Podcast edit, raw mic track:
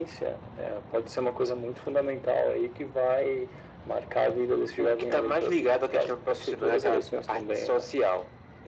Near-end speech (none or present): none